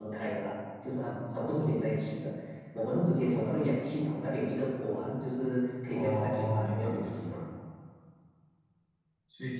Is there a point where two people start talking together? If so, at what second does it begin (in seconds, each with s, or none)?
5.9 s